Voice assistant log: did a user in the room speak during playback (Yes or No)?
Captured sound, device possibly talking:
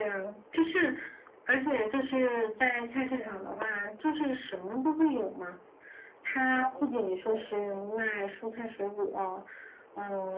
Yes